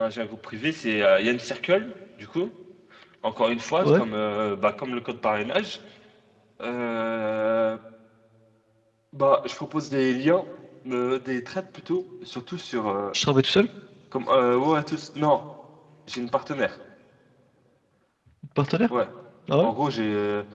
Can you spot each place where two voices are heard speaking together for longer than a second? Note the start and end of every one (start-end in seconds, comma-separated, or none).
none